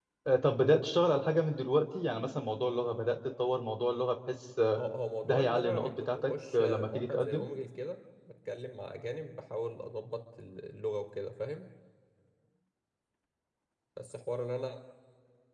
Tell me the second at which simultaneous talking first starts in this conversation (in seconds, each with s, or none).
5.2 s